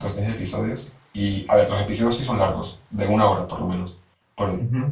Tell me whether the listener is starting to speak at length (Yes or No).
No